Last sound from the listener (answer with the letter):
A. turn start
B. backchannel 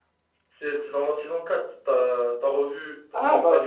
A